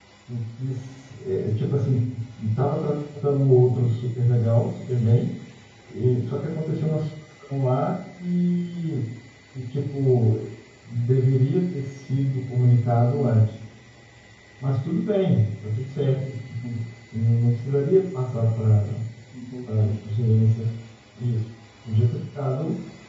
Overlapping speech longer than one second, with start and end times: none

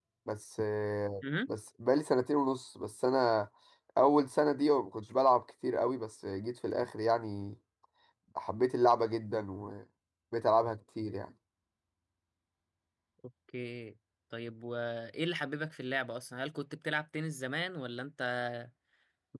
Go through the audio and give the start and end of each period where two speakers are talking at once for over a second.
none

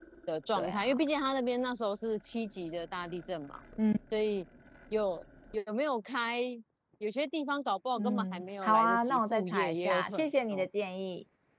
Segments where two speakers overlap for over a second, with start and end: 8.0-10.7

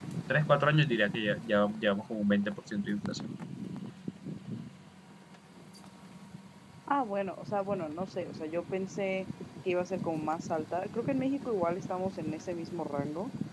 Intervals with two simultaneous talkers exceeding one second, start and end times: none

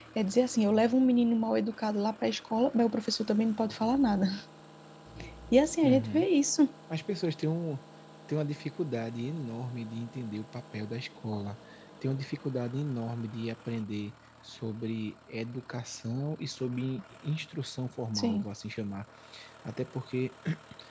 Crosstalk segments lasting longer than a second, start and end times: none

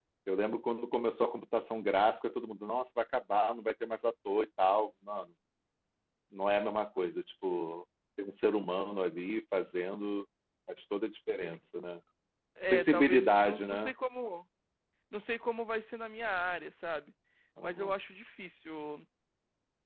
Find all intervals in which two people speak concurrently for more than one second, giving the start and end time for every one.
12.7-13.9

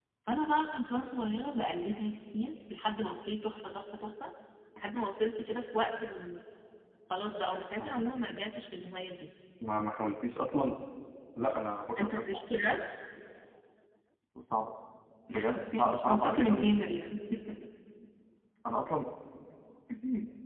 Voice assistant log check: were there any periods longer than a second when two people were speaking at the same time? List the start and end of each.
15.3-16.7

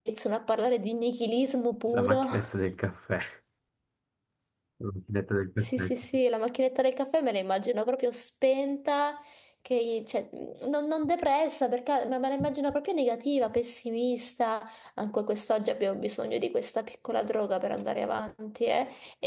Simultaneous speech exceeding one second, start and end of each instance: none

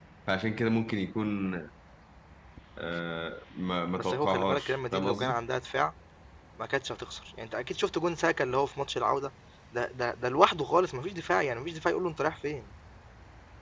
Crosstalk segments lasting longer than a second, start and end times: 4.0-5.4

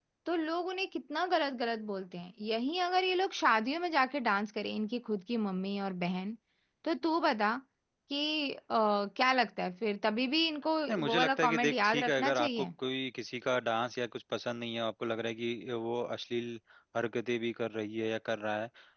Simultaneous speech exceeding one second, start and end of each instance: 10.9-12.7

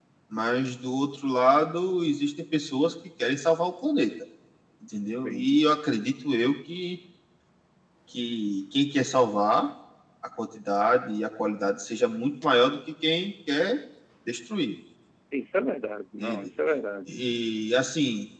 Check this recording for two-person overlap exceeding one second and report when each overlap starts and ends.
none

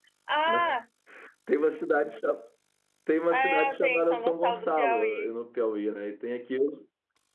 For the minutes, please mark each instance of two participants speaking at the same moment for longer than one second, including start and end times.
3.3-5.3

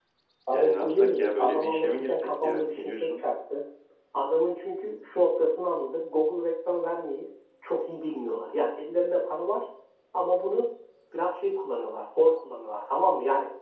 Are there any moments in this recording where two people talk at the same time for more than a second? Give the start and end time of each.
0.5-3.2

